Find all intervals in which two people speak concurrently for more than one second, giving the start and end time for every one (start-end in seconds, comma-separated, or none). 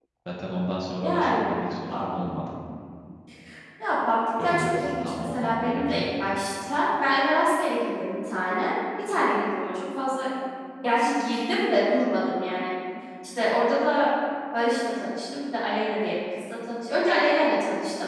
4.4-6.0